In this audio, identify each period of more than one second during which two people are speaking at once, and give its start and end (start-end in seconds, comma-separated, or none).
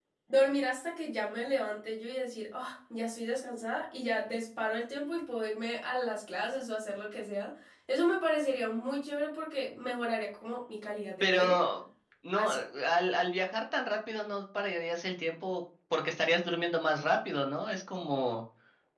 none